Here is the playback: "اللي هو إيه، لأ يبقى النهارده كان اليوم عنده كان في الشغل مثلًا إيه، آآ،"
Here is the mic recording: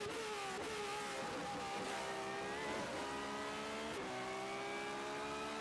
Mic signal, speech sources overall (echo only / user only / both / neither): neither